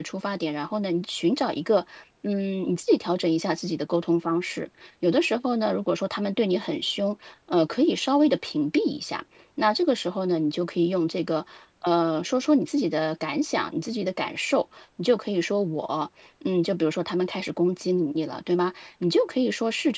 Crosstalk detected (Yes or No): No